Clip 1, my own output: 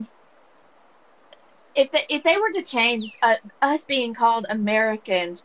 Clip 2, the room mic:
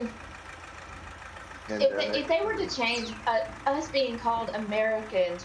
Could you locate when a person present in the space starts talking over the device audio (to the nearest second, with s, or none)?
2 s